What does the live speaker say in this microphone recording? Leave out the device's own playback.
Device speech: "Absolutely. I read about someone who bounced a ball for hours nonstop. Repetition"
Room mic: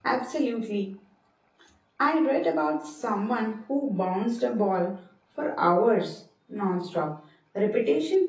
none

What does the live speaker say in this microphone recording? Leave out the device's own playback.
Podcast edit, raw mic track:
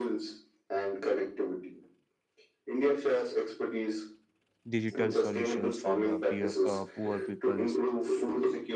digital solutions for the peer, uh, poor peoples.

